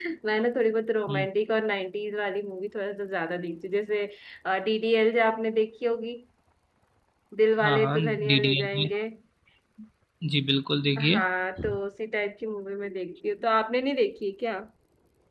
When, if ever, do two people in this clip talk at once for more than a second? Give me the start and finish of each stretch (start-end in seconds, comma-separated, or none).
7.6-8.9